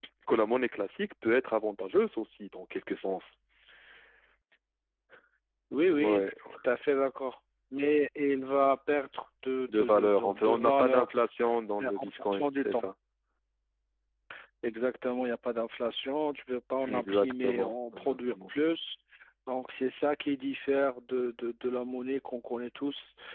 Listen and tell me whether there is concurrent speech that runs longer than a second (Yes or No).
Yes